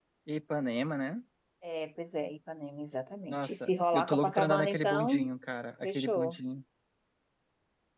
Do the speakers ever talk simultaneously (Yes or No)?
Yes